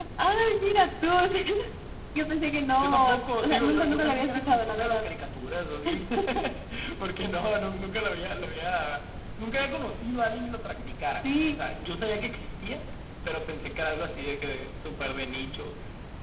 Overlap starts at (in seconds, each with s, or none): 2.8 s